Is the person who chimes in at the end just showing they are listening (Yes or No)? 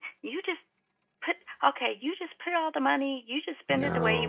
Yes